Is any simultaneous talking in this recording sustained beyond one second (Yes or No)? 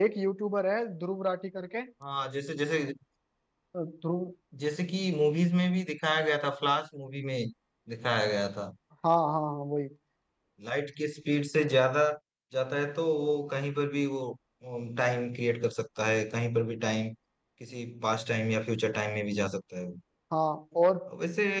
No